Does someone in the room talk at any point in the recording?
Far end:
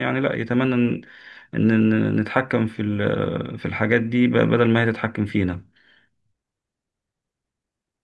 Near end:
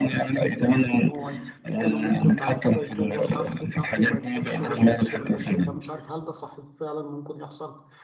Yes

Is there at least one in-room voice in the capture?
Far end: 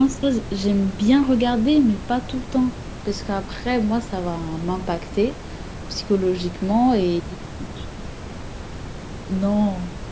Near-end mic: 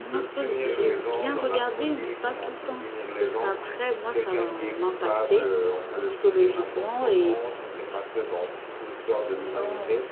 Yes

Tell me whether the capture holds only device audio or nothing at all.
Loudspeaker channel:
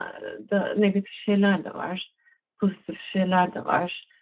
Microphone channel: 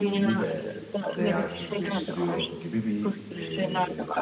No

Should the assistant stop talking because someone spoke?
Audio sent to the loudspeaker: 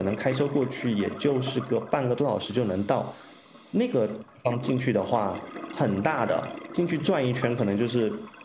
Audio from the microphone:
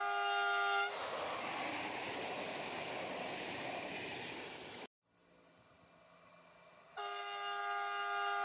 No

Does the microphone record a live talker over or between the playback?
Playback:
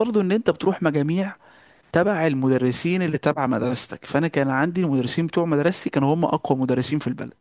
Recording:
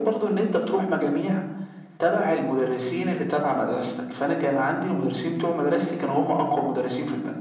No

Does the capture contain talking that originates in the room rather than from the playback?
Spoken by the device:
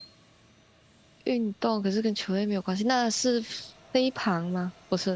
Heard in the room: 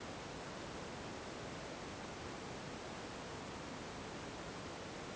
No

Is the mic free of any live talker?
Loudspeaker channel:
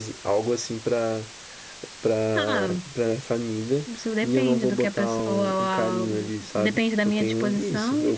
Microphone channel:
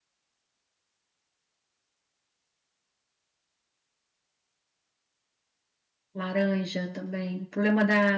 No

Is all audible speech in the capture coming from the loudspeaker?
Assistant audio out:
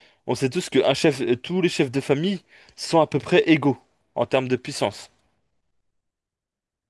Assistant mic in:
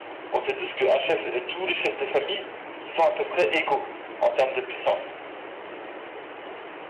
Yes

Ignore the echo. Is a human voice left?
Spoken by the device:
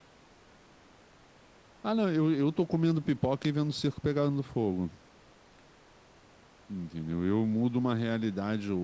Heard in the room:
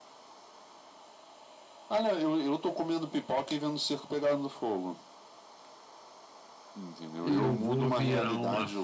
Yes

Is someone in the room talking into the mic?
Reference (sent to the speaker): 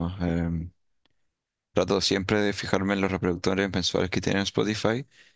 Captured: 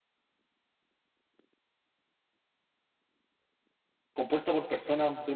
Yes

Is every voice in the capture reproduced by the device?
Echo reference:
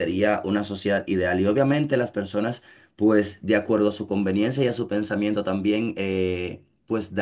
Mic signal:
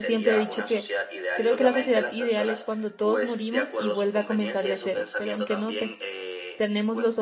No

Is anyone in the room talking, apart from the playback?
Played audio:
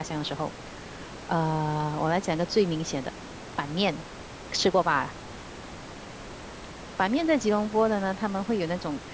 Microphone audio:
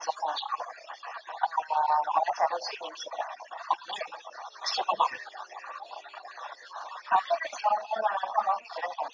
No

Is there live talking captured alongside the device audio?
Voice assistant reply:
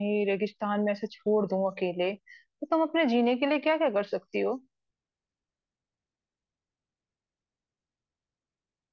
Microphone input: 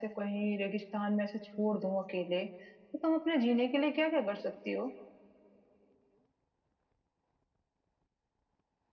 No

